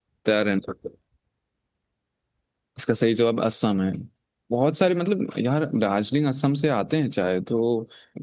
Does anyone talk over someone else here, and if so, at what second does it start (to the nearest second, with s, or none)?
none